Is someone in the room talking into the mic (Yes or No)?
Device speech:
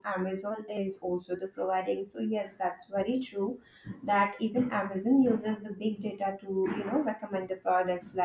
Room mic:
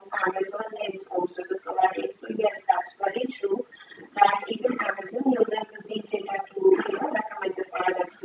No